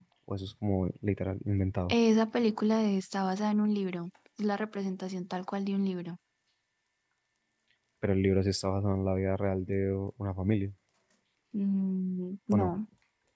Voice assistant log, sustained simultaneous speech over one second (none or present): none